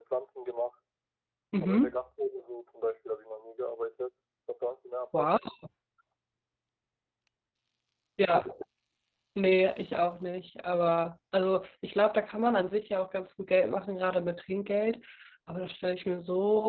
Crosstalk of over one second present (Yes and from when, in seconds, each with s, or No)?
No